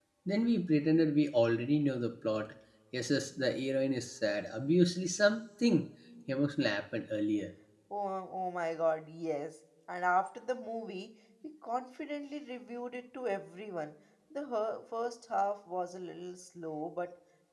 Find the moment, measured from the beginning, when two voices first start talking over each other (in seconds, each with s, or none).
none